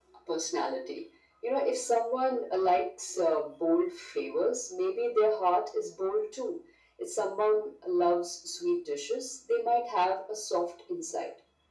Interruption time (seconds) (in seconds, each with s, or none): none